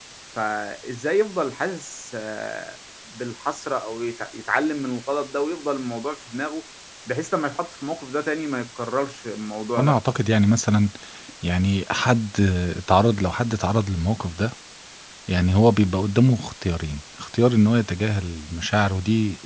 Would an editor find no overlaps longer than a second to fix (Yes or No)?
Yes